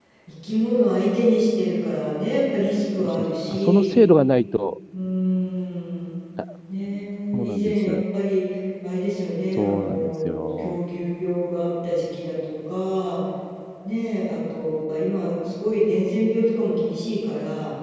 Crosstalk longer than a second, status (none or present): present